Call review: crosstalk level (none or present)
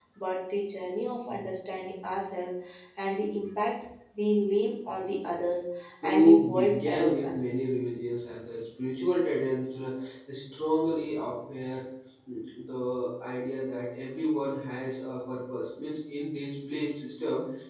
present